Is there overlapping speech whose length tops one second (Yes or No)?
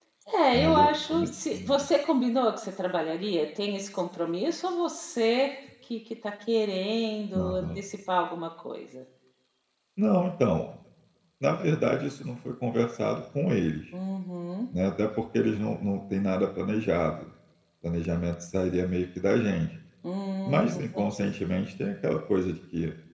Yes